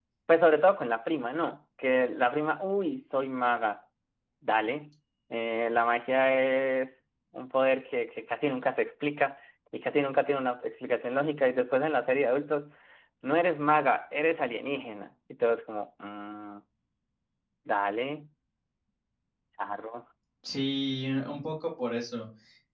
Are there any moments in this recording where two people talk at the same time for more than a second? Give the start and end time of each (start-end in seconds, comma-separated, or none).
none